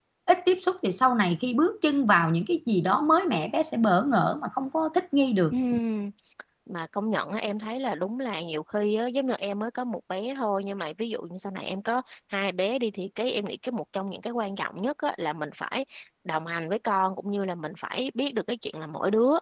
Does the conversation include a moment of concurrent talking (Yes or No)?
No